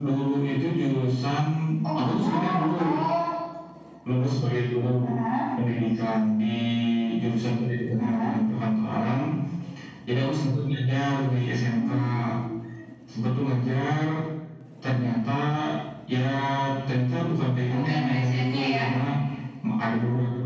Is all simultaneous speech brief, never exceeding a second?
No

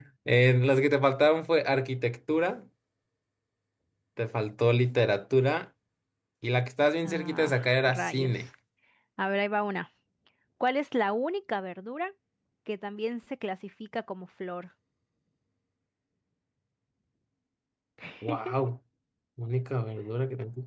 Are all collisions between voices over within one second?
No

